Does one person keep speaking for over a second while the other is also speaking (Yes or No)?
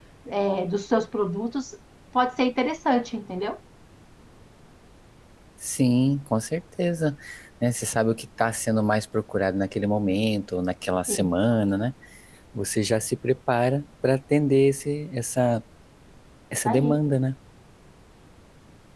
No